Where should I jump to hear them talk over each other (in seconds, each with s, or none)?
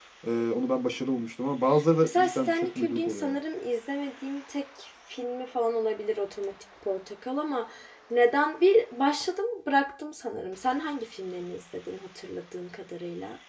2.0 s